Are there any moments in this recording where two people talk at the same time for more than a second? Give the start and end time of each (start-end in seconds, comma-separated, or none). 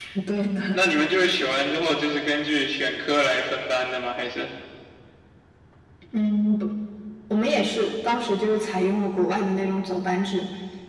none